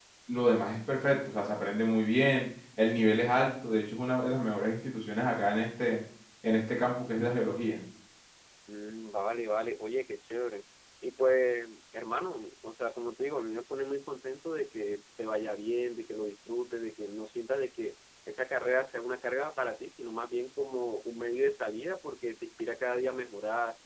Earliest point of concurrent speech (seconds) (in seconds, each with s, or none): none